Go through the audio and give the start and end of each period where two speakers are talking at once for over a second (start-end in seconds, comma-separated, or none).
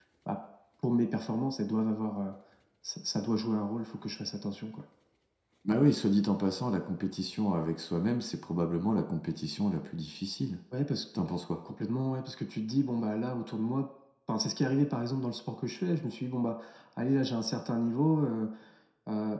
none